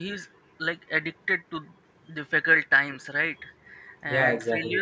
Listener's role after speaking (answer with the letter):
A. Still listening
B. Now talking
A